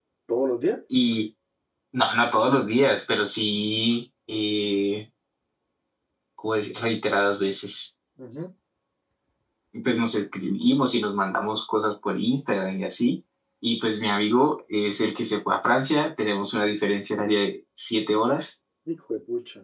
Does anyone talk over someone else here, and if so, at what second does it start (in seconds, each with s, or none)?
none